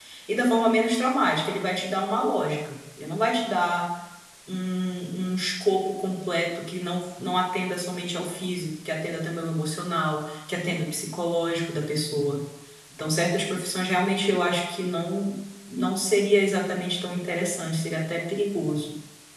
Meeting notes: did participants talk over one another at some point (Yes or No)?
No